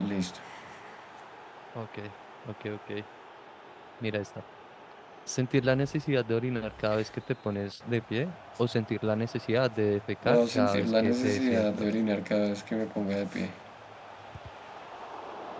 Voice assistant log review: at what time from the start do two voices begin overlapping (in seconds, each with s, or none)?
10.2 s